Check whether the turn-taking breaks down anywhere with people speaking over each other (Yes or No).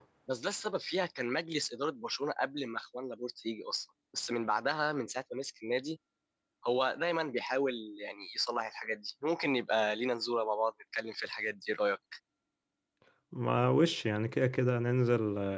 No